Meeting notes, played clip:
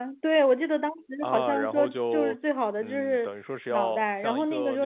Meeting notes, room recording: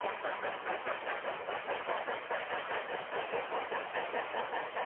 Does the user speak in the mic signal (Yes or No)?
No